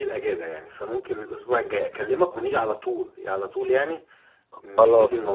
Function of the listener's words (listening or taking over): taking over